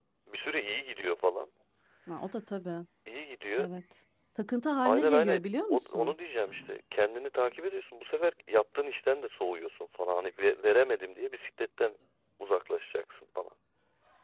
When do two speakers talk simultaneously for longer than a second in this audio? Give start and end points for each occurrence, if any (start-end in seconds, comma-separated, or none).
4.8-6.1